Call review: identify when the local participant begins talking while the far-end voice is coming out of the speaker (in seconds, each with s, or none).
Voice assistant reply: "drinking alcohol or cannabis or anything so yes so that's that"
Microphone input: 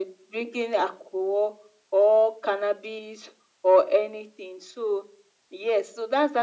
none